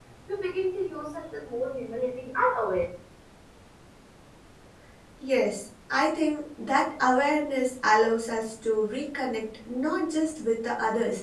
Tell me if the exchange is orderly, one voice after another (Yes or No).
Yes